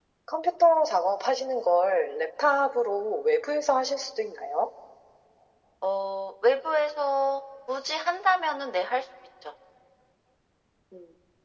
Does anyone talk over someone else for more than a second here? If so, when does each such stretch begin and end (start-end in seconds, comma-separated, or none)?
none